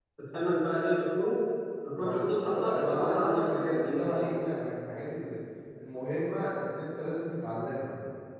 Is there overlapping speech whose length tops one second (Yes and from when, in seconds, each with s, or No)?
Yes, from 2.0 s